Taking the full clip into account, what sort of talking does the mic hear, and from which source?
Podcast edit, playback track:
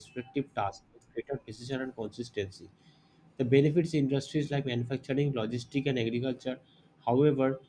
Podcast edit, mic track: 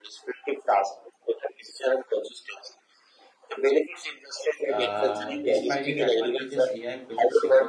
both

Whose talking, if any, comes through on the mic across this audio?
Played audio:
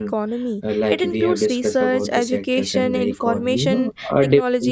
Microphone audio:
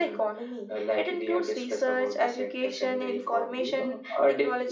echo only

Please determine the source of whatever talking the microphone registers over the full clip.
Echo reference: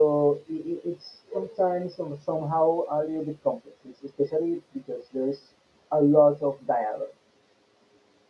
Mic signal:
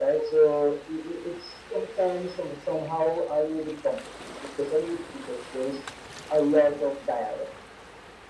echo only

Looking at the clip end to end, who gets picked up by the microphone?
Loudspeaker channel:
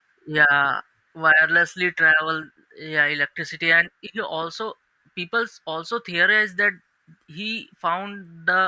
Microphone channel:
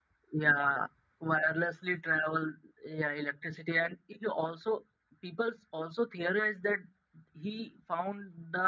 echo only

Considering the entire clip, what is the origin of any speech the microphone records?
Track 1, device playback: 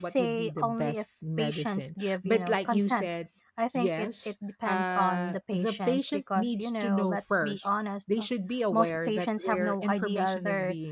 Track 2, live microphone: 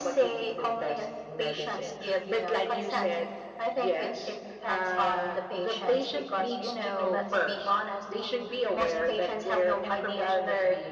echo only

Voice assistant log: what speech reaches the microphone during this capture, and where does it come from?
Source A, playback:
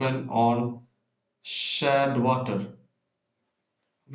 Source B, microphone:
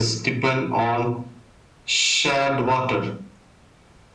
echo only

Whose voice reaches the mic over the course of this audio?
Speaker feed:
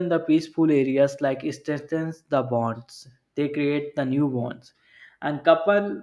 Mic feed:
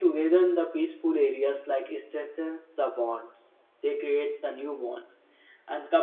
echo only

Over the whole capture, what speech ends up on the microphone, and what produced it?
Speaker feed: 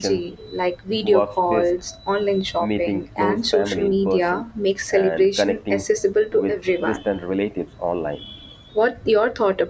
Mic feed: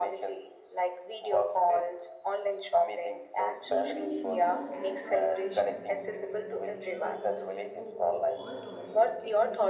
both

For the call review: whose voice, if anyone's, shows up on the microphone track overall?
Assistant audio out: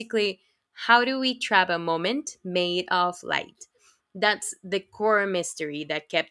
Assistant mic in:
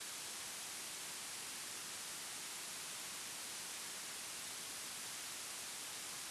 neither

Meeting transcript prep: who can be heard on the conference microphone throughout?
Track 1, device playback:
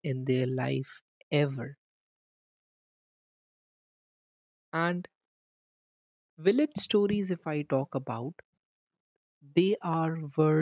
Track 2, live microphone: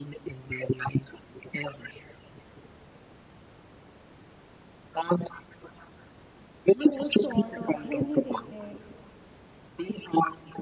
both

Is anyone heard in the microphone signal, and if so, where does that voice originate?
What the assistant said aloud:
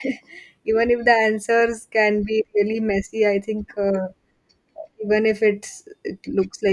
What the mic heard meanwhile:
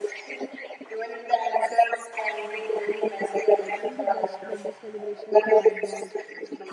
both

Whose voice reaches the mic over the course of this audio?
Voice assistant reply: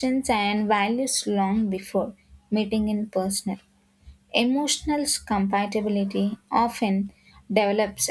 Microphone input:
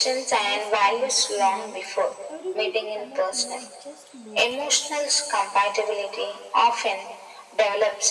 both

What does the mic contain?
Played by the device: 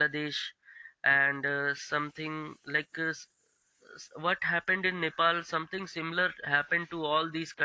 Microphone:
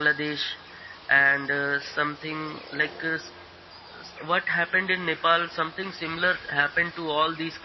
echo only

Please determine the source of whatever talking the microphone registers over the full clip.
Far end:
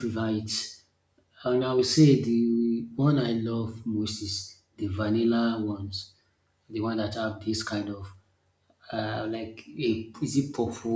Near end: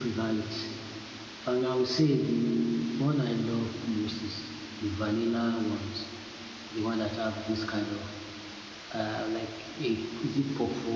echo only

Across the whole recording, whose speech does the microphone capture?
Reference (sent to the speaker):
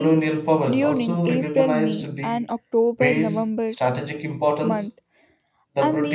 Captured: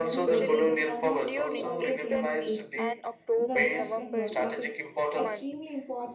both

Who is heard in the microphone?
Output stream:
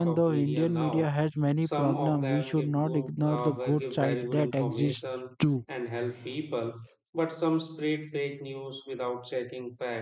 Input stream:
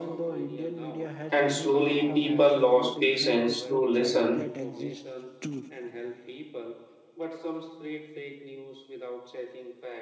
both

